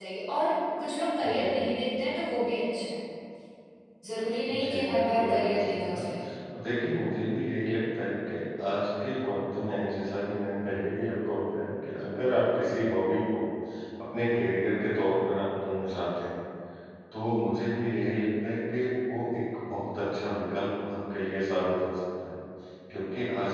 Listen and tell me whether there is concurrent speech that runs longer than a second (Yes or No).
Yes